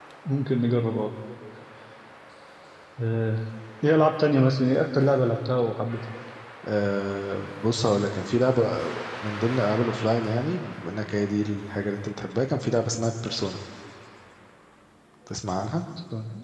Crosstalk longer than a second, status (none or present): none